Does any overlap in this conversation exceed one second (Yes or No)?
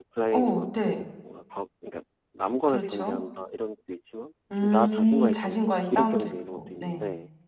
Yes